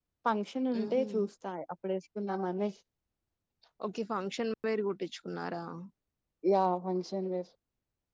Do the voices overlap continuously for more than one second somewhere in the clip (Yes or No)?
No